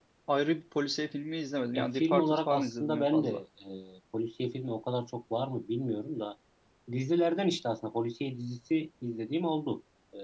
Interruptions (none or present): present